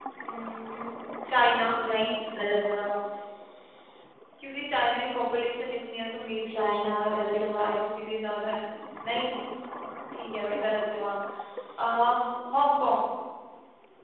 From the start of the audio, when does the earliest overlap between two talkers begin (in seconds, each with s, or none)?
6.4 s